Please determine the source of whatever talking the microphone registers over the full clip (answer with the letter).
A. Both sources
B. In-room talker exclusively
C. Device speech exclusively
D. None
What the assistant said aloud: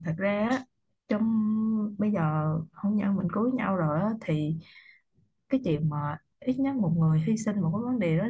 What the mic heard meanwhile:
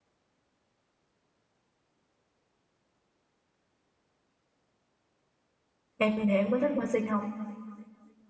B